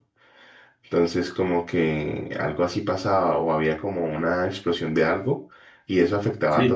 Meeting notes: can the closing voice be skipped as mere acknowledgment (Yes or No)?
Yes